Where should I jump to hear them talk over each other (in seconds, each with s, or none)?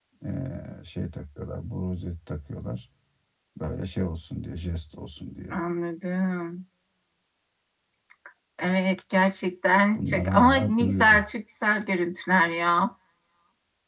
9.9 s